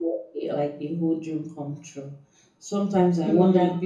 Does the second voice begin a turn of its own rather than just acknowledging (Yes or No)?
No